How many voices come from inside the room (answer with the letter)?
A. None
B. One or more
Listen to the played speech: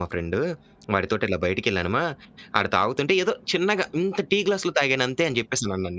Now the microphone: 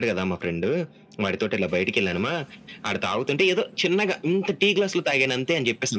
A